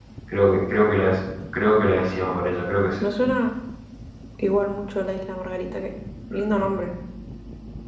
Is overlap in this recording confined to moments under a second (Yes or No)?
Yes